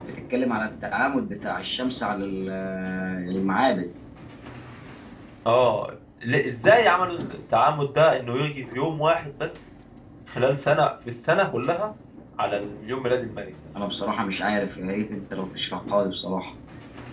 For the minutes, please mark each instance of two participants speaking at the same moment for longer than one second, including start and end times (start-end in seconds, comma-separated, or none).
none